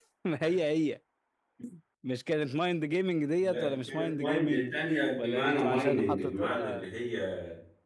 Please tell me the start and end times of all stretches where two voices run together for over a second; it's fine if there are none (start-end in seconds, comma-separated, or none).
3.5-4.7, 5.2-6.9